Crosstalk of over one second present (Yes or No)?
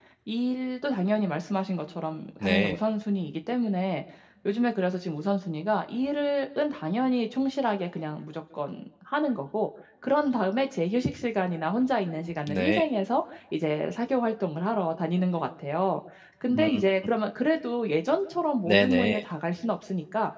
No